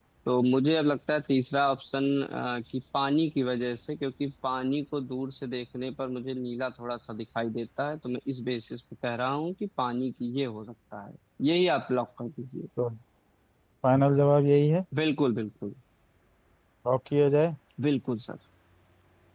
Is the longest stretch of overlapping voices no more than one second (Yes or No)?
Yes